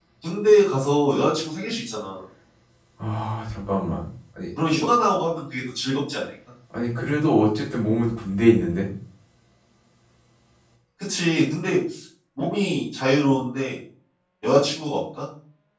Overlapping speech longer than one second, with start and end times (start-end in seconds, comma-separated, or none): none